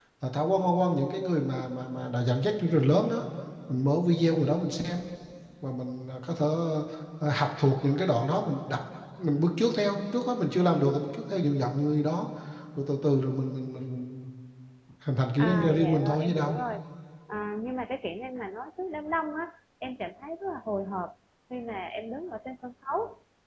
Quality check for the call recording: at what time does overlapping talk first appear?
15.4 s

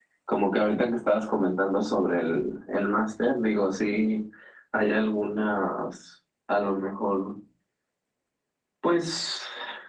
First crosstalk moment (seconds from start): none

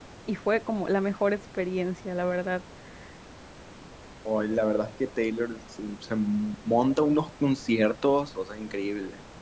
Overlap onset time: none

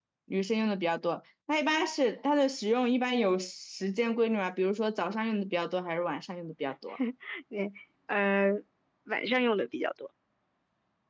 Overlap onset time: none

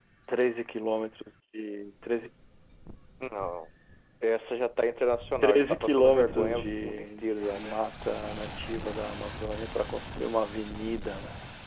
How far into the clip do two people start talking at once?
5.4 s

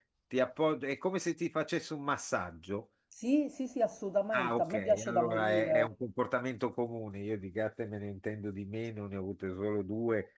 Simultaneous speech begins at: 4.3 s

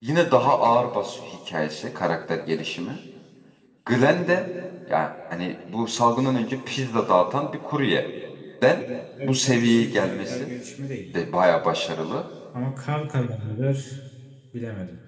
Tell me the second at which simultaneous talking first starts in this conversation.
9.2 s

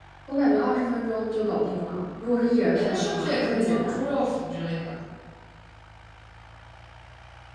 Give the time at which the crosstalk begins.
2.7 s

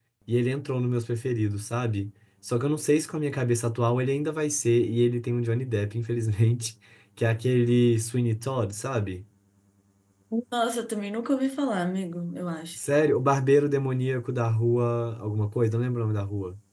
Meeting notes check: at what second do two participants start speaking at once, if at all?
none

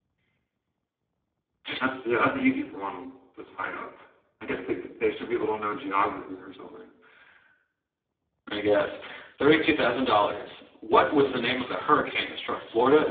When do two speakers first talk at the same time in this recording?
none

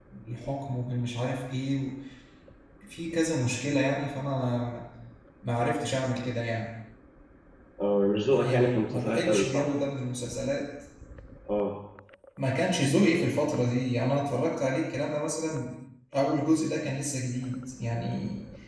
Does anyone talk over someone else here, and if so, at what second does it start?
8.3 s

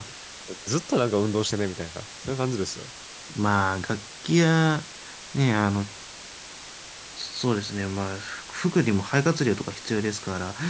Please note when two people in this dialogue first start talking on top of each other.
none

